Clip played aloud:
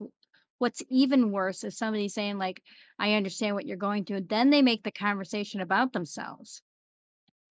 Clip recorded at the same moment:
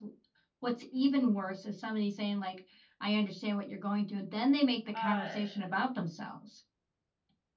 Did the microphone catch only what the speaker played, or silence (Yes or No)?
No